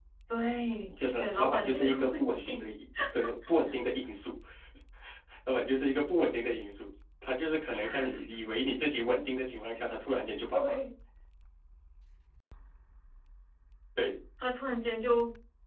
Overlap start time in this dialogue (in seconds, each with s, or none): 1.1 s